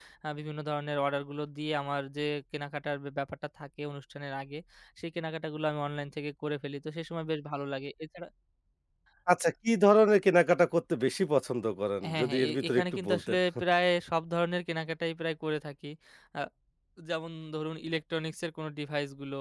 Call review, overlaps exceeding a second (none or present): present